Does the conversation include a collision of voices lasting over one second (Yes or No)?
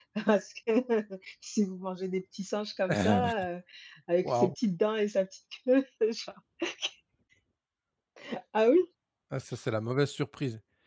No